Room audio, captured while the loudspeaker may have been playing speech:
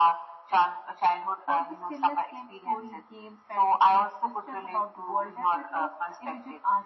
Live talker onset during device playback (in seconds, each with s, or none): 1.4 s